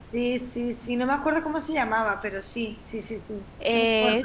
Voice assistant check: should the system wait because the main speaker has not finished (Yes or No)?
No